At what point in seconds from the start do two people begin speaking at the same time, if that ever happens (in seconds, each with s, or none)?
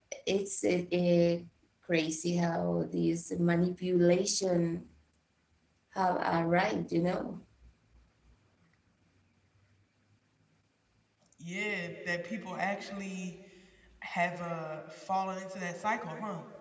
none